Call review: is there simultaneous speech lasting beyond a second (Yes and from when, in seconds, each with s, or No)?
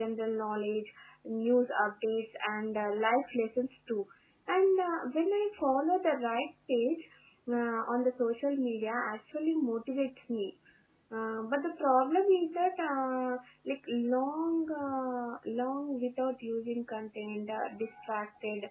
No